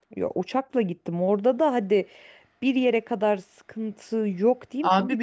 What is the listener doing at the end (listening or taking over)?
taking over